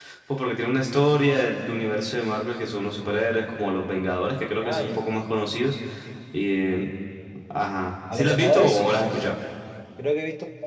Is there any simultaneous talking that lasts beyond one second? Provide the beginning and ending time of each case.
8.1-9.4

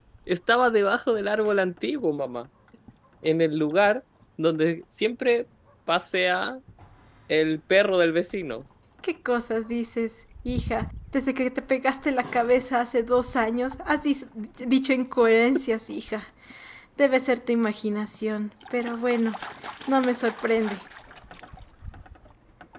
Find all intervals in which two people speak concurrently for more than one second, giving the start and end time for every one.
none

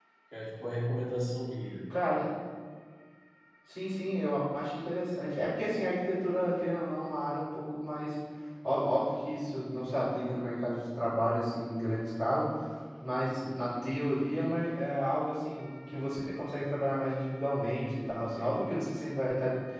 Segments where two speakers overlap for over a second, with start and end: none

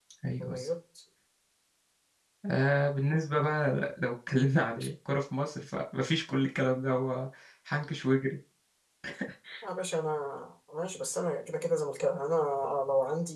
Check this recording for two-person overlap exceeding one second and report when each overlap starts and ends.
none

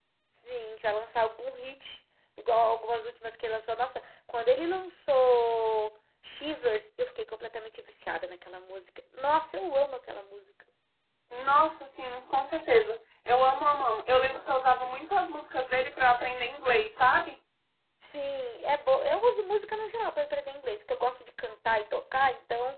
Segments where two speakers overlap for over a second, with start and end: none

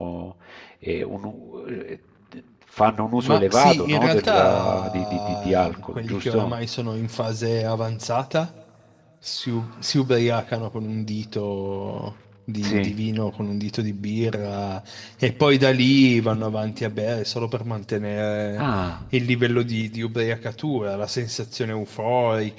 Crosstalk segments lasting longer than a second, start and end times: 3.2-6.5

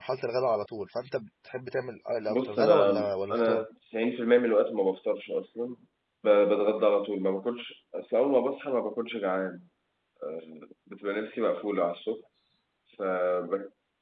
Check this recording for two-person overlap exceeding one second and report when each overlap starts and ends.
2.3-3.6

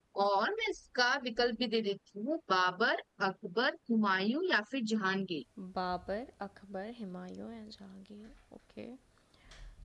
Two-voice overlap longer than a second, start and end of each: none

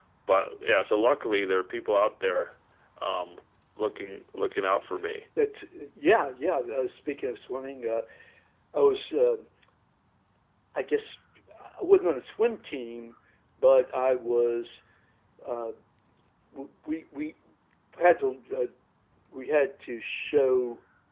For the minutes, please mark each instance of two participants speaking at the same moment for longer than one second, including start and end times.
none

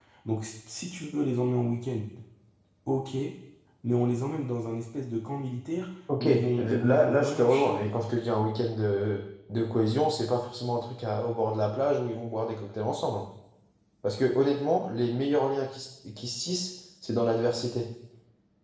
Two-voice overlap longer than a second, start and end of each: 6.2-7.8

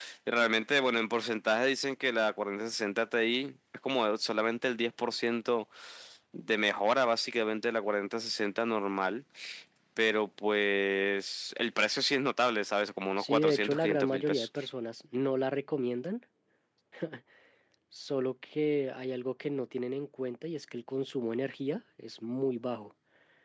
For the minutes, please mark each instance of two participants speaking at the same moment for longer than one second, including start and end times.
13.2-14.5

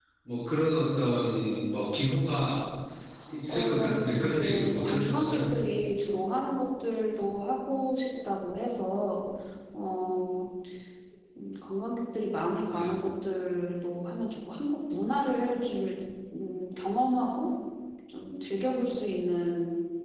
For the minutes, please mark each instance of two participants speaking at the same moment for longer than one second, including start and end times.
3.5-5.5

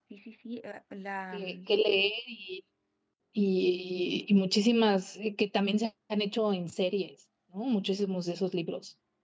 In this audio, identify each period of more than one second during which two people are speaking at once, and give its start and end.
none

